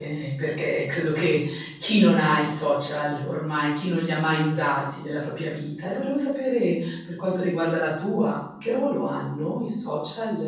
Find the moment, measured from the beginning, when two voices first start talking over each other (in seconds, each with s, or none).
none